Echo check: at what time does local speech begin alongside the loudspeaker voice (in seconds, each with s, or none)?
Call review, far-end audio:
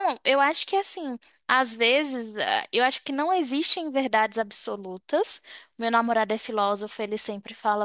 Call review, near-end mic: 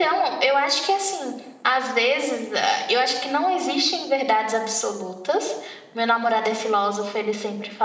none